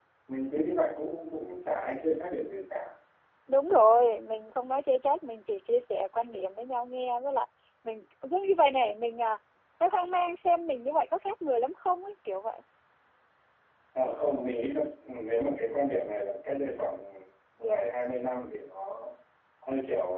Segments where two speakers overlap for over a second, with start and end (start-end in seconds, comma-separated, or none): none